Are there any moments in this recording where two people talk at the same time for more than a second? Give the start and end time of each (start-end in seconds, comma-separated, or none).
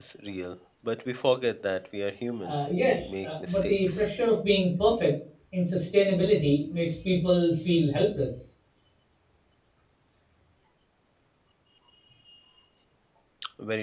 2.4-4.1